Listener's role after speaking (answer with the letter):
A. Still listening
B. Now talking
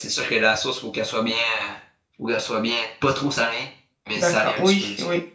B